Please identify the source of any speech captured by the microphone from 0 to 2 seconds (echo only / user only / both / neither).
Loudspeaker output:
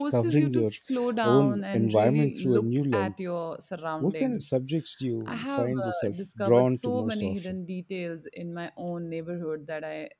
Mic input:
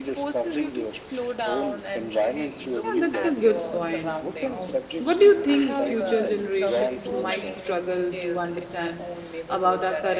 echo only